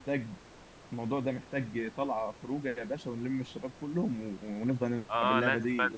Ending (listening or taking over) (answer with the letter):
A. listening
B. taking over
B